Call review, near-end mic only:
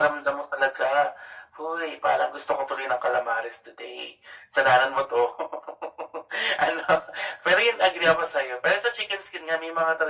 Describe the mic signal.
echo only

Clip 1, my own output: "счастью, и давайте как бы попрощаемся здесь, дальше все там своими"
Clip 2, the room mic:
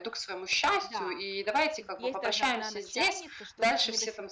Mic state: both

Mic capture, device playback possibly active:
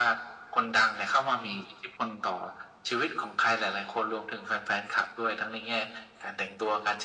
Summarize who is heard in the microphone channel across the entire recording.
echo only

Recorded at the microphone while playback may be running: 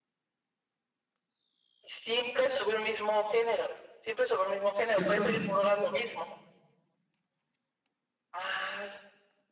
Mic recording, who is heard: both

